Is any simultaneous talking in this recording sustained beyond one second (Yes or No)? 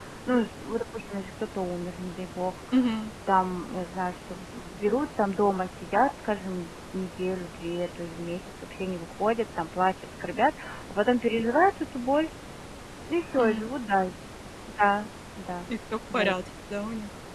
No